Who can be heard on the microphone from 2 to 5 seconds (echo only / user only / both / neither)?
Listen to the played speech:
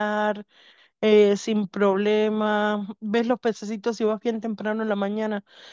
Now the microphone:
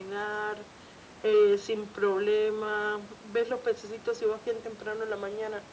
echo only